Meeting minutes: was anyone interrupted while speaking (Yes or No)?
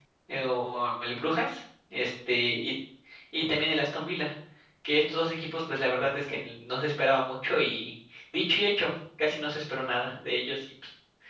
No